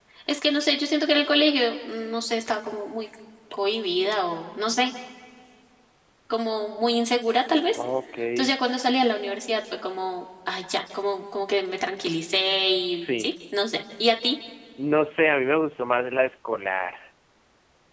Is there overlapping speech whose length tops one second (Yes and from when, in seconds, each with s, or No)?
No